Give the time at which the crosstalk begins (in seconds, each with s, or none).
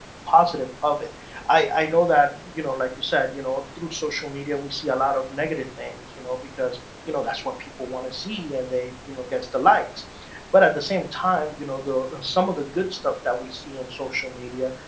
none